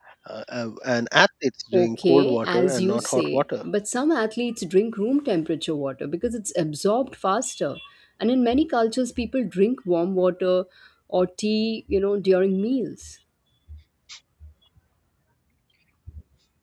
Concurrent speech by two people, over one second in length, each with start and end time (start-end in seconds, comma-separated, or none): 1.7-3.4